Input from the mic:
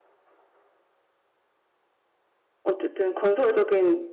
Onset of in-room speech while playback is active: 2.6 s

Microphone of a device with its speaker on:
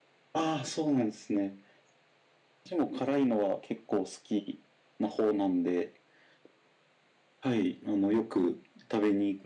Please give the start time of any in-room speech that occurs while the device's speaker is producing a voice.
none

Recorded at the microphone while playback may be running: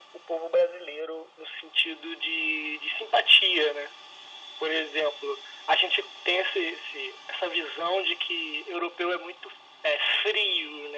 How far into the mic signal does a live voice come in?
none

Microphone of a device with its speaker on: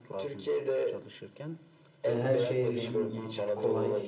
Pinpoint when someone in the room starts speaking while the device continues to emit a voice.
2.1 s

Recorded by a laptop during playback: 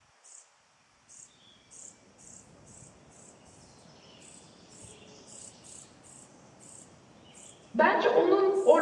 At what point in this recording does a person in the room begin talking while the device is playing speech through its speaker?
7.7 s

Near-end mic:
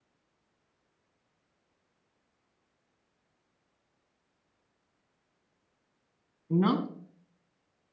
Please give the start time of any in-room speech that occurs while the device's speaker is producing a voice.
6.5 s

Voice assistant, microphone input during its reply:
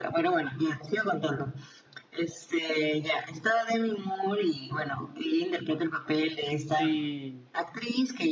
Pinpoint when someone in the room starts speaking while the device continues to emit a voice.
6.7 s

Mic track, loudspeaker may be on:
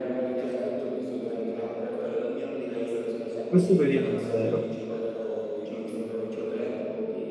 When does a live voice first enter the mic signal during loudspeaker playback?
3.5 s

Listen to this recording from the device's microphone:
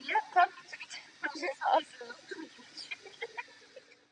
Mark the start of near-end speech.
none

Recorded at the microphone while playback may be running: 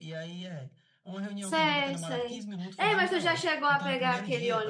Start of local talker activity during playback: 1.4 s

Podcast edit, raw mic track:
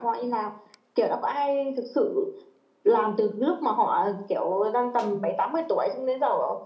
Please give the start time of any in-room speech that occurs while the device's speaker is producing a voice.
none

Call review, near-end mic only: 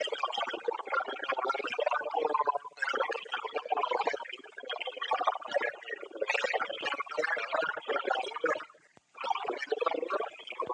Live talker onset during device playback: none

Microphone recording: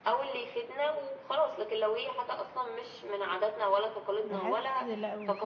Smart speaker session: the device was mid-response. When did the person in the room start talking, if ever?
4.2 s

